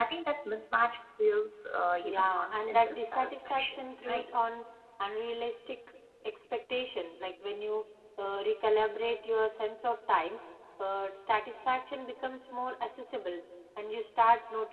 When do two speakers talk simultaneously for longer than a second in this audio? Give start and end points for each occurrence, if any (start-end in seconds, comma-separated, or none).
2.0-4.3